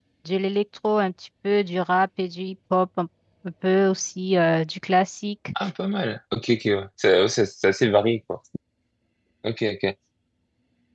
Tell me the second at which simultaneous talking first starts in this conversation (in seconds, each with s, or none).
none